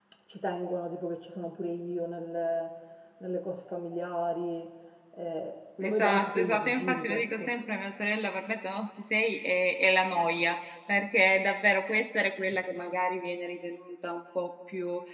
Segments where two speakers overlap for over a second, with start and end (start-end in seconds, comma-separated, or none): 5.8-7.5